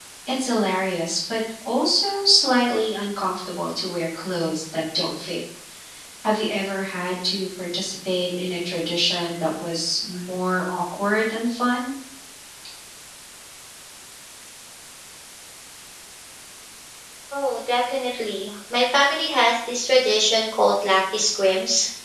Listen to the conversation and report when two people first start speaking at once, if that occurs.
none

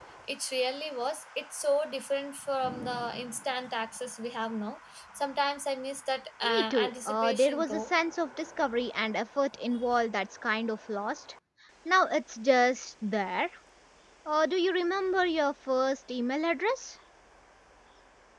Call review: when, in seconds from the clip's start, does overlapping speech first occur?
6 s

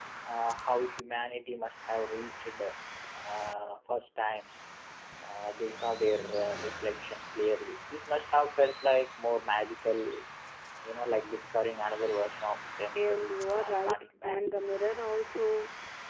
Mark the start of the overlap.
13 s

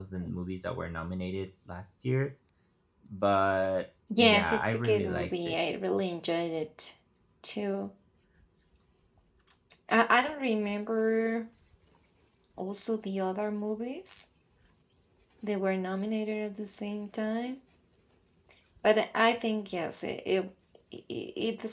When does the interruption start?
4 s

